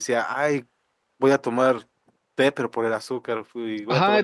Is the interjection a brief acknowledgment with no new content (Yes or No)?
No